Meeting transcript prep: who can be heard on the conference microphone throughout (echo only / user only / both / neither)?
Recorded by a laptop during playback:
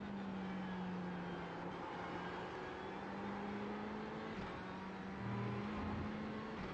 neither